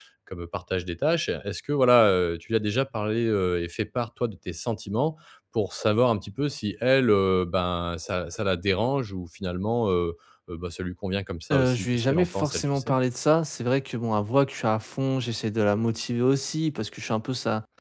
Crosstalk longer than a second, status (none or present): present